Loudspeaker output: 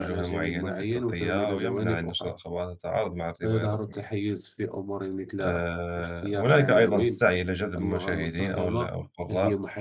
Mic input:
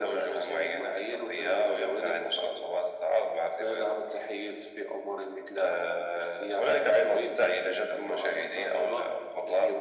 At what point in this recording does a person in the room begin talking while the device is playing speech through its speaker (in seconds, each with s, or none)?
none